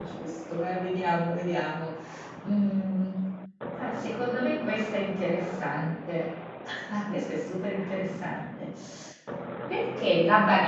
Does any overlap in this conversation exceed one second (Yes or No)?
No